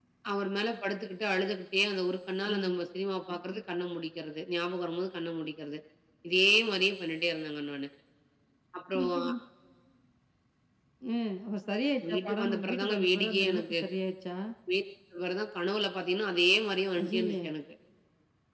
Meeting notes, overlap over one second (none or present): present